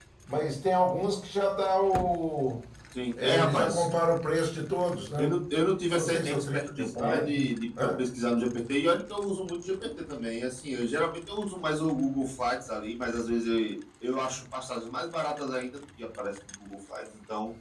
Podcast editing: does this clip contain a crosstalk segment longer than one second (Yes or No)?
Yes